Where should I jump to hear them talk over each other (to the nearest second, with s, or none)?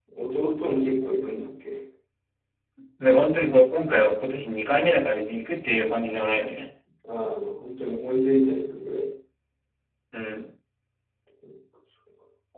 none